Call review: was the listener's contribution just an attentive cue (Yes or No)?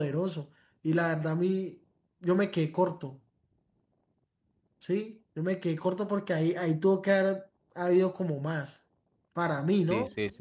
No